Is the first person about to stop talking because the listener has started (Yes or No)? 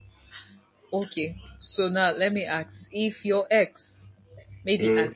No